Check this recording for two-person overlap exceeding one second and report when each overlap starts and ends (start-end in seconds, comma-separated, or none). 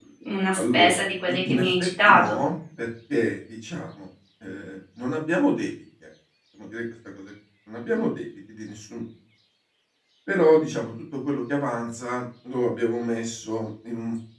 0.6-2.4